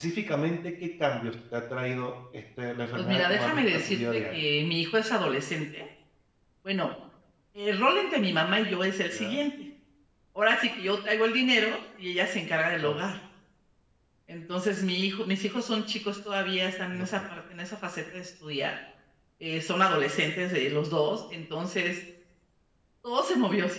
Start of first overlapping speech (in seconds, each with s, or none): 2.9 s